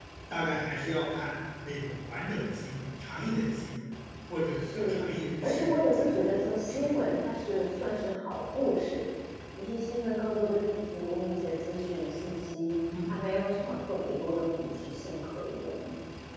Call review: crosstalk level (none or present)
present